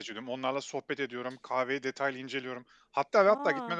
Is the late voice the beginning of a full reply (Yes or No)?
No